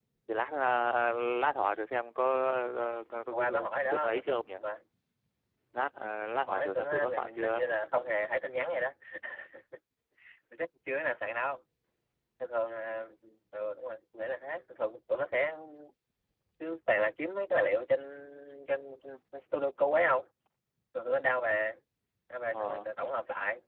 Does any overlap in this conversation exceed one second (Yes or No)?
Yes